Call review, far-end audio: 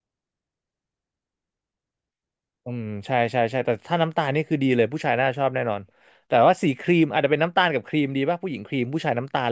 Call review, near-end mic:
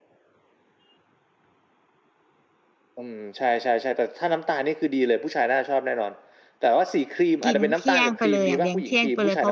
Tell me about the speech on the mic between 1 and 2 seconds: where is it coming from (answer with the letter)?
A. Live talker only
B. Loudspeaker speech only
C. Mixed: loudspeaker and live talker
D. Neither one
D